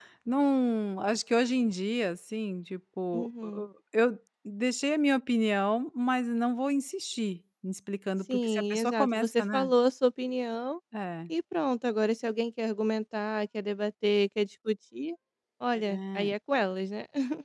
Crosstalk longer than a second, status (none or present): present